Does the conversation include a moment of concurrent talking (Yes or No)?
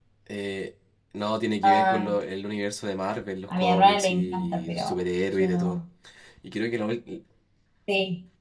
Yes